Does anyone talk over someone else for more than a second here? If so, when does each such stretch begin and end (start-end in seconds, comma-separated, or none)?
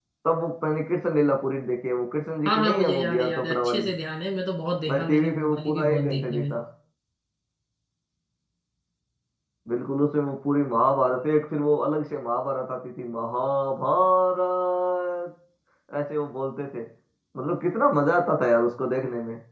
2.4-3.9, 4.9-6.6